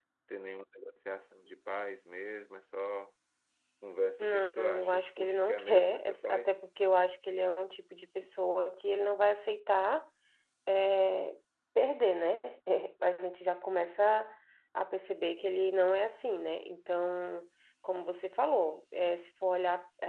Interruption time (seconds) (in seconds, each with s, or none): 4.2 s